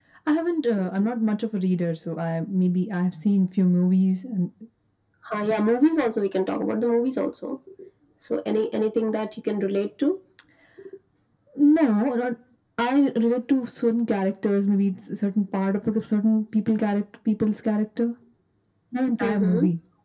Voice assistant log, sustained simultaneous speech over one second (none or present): none